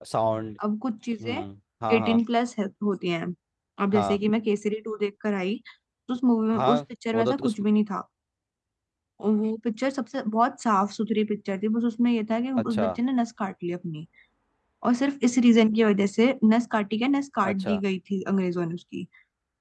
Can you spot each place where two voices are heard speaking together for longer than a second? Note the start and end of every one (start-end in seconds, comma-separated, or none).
none